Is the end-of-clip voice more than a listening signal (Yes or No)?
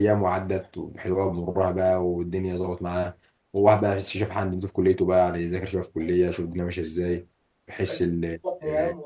Yes